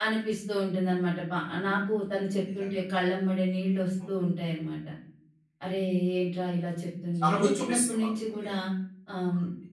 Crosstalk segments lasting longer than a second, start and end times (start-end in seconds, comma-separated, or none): 7.2-8.5